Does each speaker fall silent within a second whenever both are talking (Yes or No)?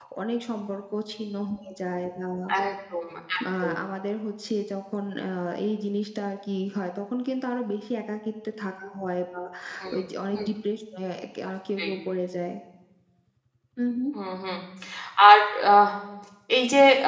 Yes